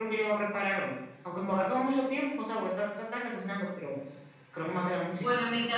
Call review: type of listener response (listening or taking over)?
taking over